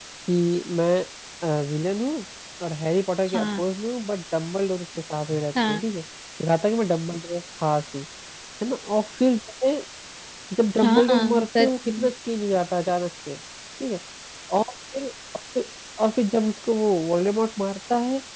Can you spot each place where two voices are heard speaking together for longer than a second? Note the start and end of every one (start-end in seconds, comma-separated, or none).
10.8-12.1